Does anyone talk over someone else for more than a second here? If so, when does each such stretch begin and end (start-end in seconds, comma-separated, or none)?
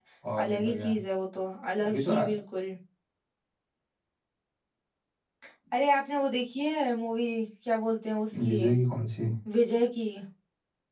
none